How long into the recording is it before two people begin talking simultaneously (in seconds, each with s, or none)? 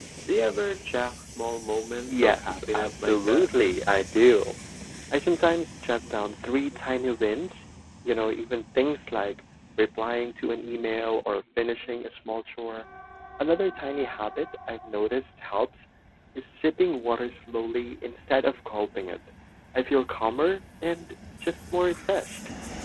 1.9 s